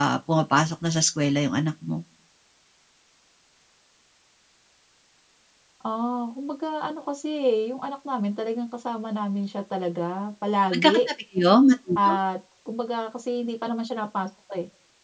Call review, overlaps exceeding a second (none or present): none